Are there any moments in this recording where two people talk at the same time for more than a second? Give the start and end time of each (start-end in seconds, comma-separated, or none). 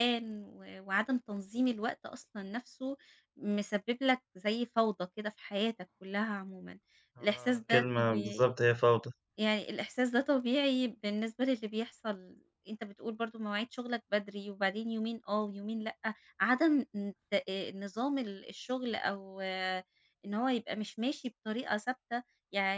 7.2-8.5